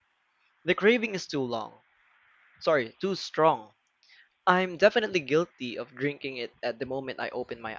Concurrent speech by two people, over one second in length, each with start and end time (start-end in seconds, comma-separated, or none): none